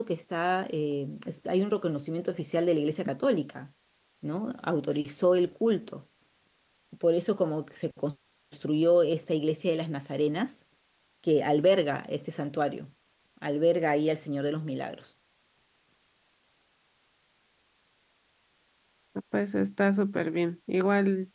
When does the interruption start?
none

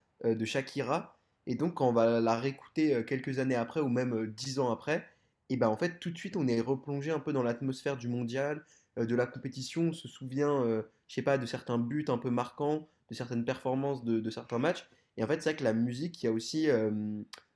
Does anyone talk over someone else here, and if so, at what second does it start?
none

